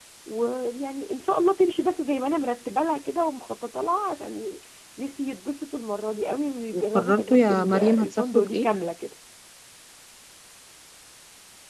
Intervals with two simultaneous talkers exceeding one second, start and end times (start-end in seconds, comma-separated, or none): 6.7-8.7